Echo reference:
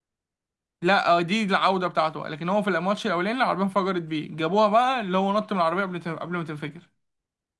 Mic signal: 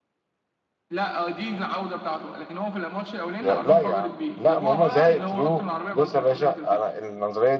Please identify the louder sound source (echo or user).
user